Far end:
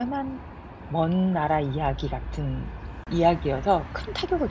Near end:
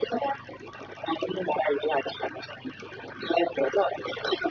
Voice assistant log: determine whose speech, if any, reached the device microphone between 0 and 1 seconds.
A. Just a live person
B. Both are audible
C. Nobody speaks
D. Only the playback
D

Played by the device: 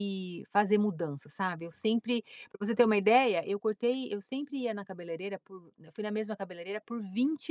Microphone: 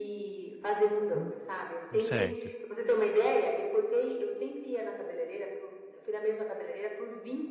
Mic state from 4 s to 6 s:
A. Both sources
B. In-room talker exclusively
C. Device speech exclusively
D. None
C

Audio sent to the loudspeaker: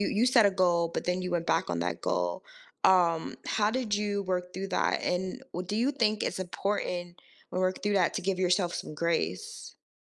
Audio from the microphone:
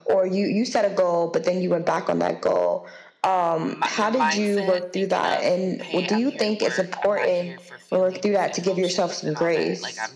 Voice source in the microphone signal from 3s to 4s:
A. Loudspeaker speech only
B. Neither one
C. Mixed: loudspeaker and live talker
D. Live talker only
C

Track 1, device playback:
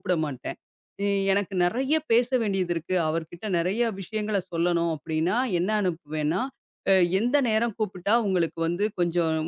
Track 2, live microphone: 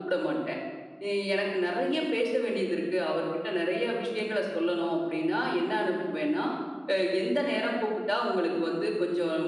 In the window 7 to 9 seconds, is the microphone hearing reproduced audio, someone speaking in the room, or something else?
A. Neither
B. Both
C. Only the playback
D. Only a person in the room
C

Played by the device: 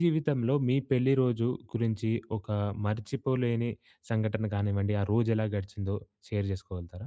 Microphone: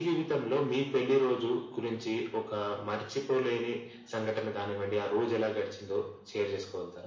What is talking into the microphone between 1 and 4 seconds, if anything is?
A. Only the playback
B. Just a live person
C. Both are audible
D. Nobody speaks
A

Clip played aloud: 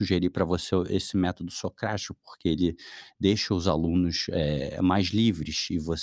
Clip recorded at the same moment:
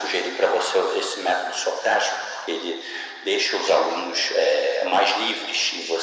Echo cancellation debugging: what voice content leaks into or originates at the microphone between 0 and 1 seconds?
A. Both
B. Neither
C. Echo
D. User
C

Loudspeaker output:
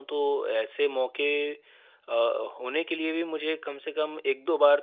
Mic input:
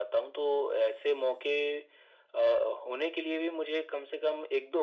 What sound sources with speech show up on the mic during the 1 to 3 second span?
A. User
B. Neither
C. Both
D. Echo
D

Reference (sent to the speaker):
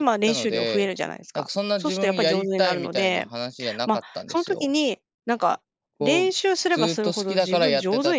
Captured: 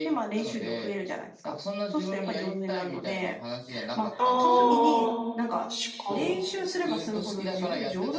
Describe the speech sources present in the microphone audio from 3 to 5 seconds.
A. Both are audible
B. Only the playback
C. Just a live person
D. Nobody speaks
A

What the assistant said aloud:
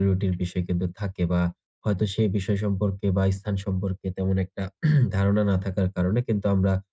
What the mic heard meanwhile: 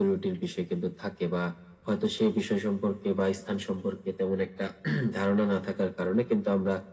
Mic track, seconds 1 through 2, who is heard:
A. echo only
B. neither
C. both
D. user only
A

